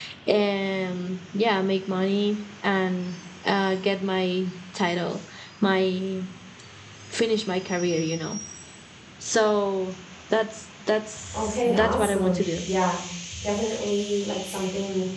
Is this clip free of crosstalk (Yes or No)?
No